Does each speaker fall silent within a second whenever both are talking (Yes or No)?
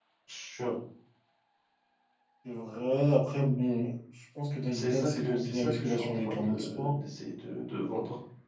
No